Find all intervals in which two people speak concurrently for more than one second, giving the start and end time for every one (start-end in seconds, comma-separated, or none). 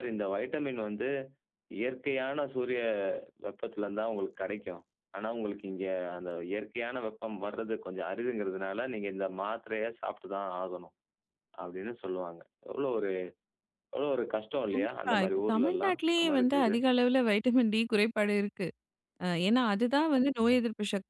14.7-16.7